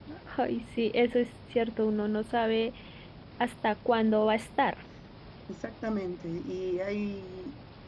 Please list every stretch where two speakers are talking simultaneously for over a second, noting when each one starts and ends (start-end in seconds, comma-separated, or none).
none